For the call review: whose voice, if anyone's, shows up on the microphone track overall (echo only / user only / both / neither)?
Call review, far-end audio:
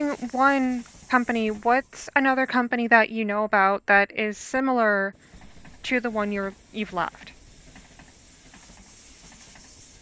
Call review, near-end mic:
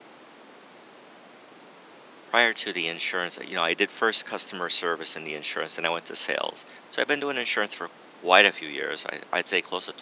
user only